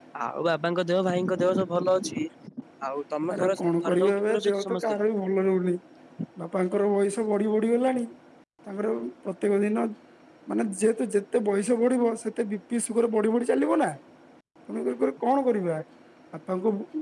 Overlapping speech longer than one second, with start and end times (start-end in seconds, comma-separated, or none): 3.4-4.8